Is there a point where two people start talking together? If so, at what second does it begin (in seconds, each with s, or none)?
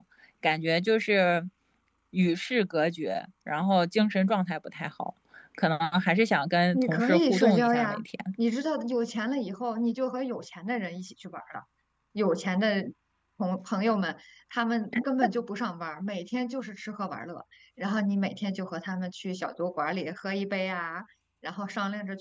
6.7 s